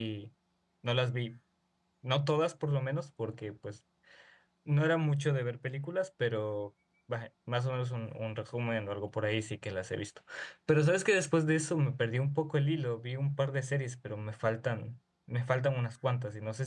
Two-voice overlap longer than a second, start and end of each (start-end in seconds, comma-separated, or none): none